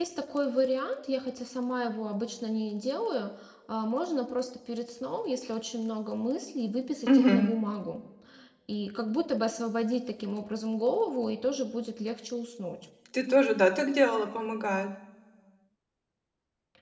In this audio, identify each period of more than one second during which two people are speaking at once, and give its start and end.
none

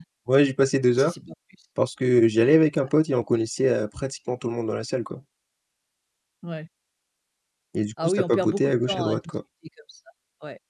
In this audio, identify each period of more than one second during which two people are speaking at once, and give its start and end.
8.0-9.3

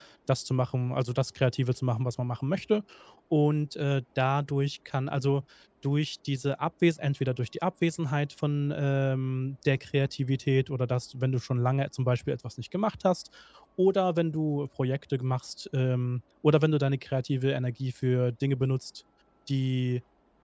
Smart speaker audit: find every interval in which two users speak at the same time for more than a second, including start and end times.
none

